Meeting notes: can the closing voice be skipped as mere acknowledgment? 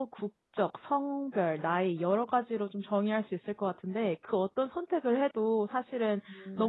Yes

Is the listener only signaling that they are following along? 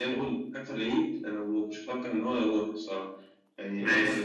Yes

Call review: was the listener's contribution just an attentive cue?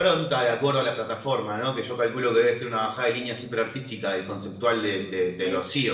No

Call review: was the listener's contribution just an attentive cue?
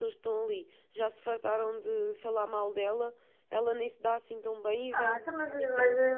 No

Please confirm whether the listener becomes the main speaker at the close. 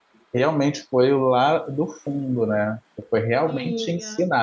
No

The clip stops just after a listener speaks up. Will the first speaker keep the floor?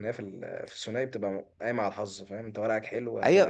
No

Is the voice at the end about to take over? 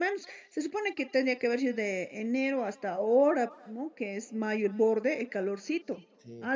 No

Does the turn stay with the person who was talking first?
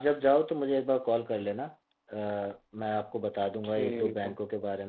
Yes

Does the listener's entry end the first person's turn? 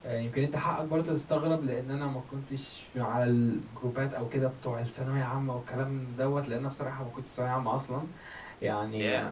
No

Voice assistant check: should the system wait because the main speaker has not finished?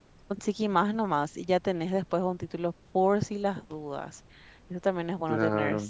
Yes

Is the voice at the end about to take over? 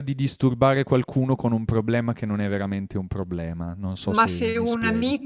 Yes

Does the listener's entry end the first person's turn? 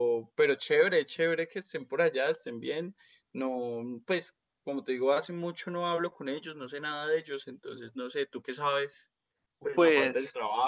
Yes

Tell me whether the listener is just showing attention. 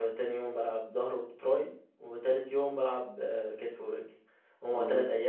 Yes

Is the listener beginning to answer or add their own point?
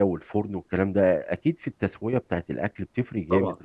No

